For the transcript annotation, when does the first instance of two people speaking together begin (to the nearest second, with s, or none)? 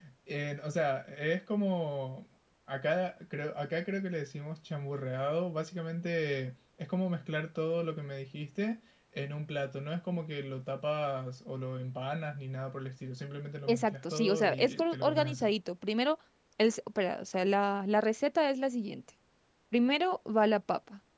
14 s